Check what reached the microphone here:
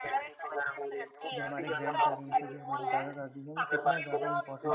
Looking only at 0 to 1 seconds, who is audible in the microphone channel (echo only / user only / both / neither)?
echo only